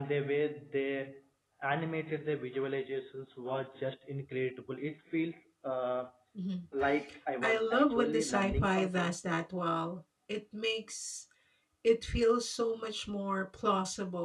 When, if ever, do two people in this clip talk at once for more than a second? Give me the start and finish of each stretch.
7.4-9.1

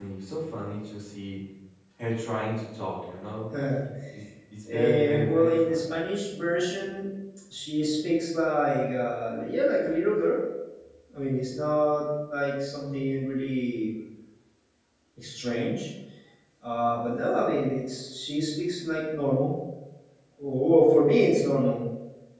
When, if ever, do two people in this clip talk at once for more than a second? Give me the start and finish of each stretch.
4.7-5.9

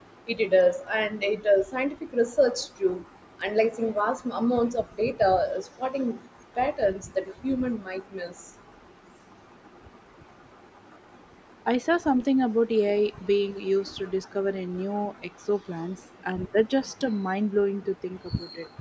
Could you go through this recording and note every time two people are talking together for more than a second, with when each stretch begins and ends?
none

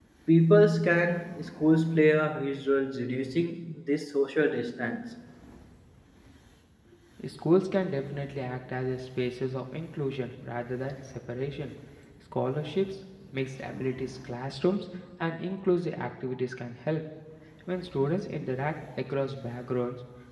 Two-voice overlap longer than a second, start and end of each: none

